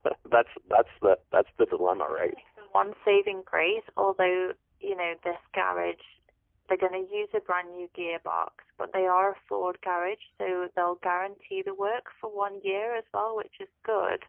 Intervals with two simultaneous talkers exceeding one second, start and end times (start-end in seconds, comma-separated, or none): none